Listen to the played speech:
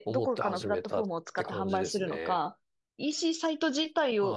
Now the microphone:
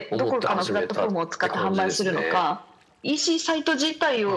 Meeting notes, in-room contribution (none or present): none